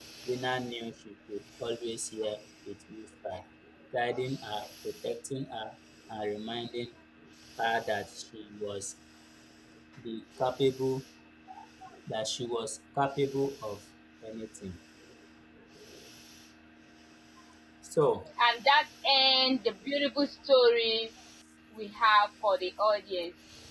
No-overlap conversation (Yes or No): Yes